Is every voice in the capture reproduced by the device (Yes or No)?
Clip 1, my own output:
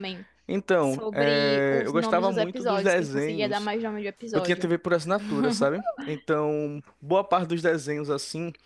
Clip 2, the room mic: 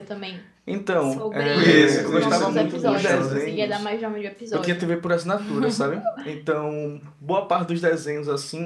No